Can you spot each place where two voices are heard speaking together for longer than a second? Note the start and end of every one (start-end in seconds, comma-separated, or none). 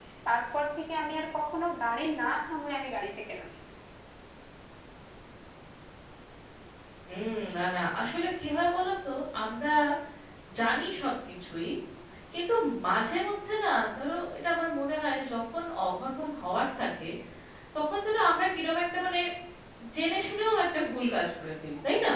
none